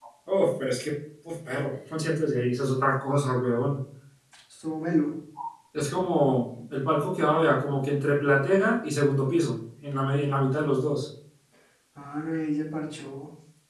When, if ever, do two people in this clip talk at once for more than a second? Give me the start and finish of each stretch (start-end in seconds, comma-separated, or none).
none